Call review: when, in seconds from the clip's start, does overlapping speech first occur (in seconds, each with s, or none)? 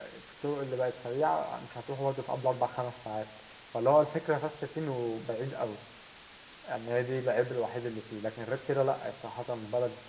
none